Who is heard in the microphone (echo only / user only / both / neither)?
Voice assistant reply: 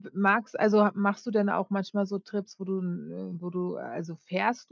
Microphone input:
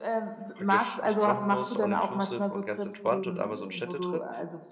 both